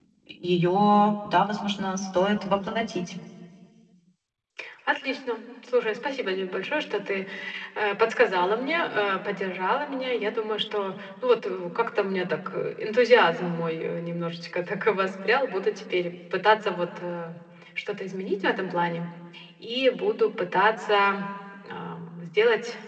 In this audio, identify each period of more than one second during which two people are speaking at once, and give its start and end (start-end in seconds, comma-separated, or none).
none